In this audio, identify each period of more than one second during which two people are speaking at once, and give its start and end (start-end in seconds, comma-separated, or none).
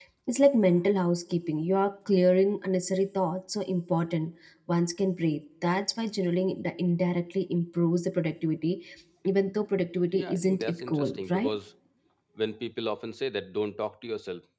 10.1-11.5